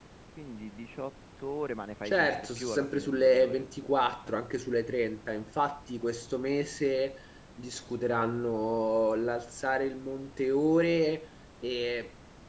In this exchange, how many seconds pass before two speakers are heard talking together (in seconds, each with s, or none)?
2.0 s